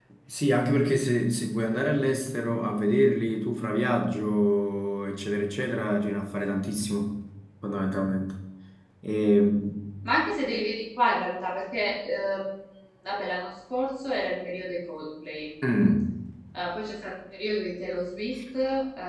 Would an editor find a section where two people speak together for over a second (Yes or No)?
No